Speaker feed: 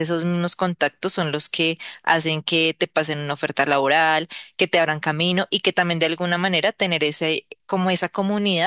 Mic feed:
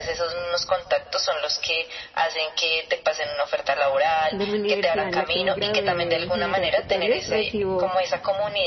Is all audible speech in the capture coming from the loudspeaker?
No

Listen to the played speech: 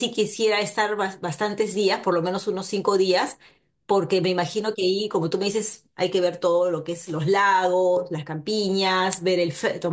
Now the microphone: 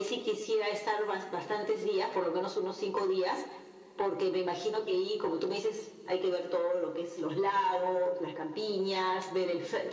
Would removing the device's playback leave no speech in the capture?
Yes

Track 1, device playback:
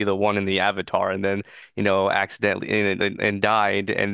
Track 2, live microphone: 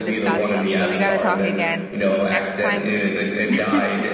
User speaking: Yes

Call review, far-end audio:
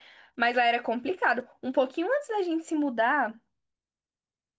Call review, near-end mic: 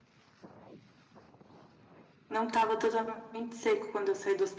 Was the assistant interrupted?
Yes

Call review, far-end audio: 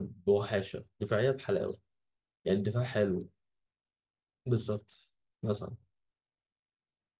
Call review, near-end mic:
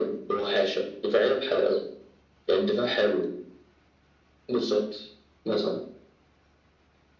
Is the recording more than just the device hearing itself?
No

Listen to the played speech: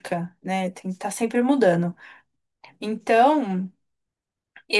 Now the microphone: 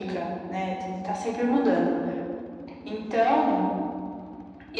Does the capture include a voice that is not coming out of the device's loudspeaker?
No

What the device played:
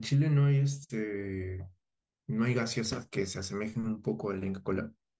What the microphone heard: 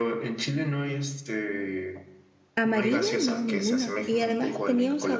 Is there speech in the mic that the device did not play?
Yes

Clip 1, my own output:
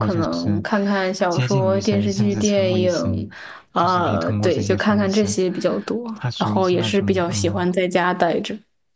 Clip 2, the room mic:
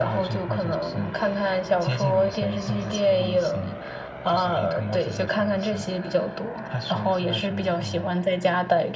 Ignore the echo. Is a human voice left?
No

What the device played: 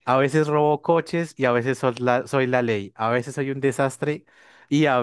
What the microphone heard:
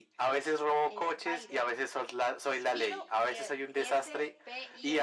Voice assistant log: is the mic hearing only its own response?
No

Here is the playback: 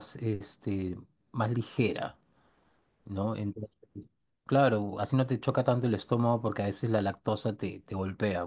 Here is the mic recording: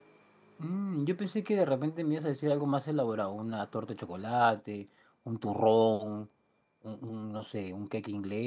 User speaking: Yes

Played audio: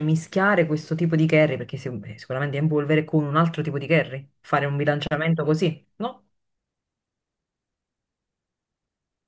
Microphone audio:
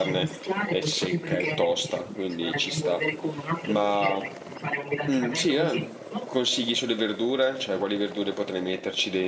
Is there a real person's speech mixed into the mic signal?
Yes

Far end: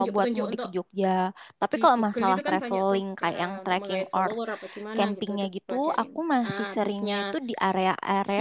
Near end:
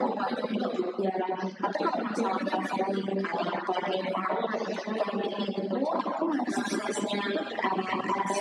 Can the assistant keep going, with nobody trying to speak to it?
Yes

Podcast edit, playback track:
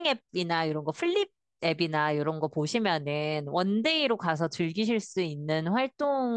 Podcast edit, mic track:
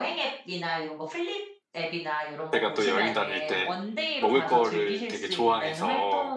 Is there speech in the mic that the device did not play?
Yes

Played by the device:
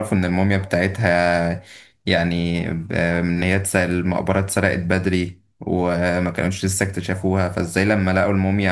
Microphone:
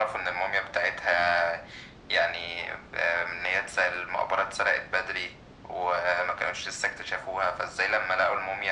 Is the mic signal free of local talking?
Yes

